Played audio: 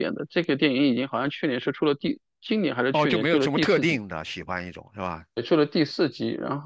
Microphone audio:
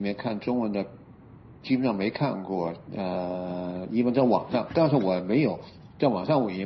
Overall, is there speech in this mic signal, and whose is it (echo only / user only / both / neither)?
user only